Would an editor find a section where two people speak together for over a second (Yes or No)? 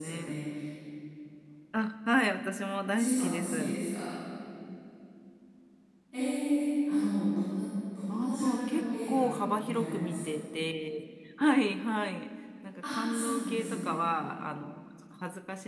Yes